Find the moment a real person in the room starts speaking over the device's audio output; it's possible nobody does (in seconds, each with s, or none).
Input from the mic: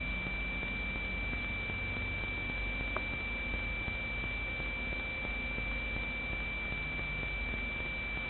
none